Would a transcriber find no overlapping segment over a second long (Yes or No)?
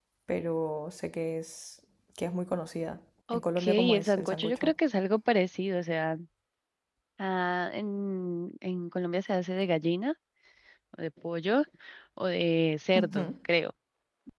No